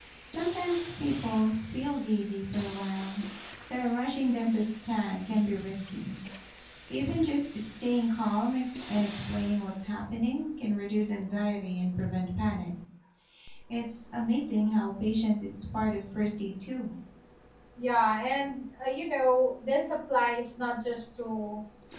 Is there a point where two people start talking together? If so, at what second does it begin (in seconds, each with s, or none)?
none